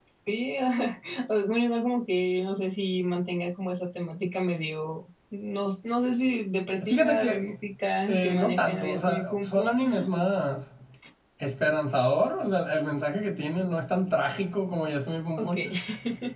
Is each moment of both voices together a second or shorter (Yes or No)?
No